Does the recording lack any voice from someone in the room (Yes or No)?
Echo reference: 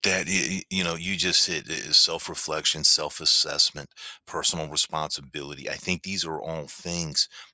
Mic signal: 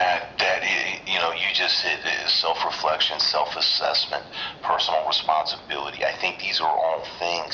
Yes